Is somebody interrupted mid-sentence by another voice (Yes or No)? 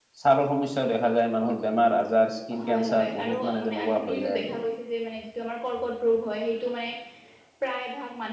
Yes